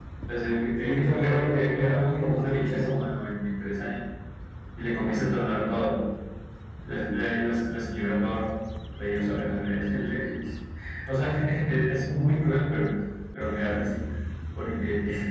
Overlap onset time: 0.8 s

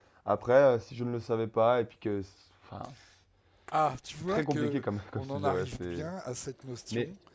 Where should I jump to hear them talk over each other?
4.2 s

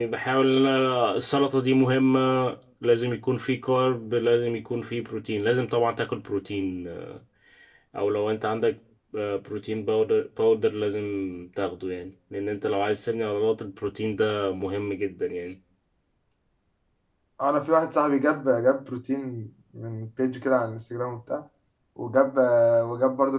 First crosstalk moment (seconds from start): none

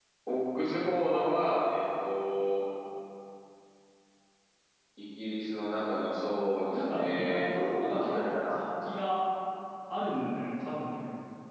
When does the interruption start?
6.7 s

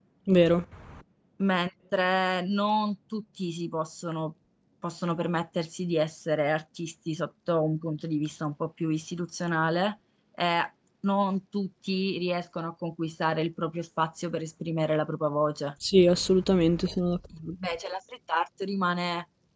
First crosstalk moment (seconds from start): none

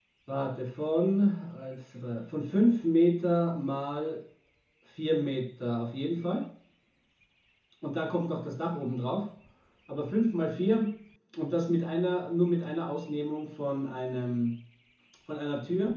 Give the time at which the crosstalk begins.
none

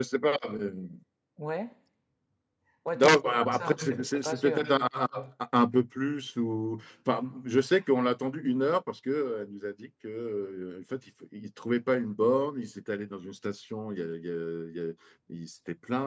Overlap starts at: 2.9 s

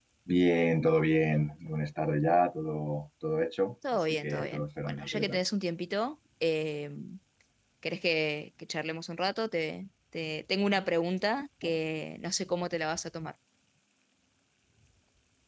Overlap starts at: 3.8 s

